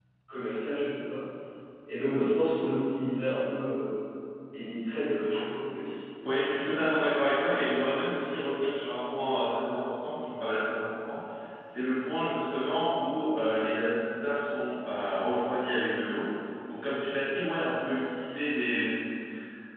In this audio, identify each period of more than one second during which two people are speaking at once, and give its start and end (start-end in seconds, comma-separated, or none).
none